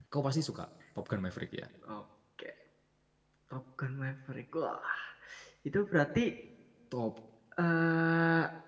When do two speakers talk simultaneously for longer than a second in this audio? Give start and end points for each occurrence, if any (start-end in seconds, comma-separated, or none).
none